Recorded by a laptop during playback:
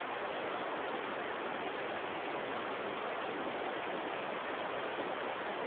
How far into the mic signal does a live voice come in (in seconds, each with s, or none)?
none